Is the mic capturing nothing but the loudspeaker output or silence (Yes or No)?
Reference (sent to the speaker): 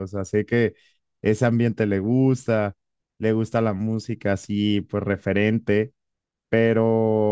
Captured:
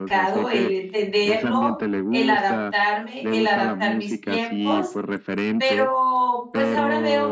No